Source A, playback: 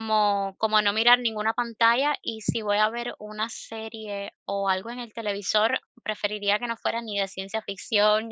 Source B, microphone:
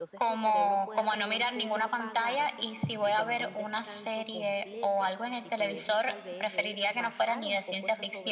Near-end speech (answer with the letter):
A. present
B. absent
A